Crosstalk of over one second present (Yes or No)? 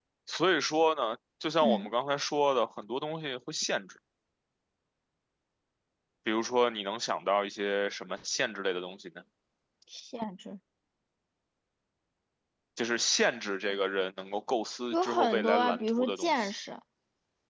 Yes